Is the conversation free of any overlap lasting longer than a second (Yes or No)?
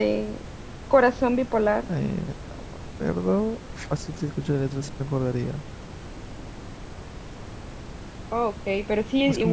Yes